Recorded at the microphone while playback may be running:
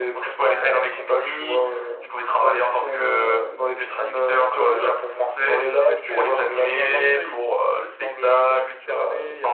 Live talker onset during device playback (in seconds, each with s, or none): 5.4 s